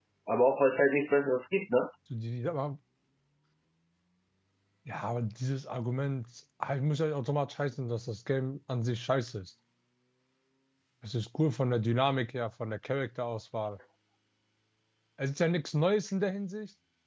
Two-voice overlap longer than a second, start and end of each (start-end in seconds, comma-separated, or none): none